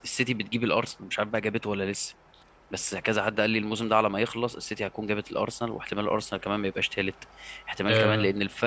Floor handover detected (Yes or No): No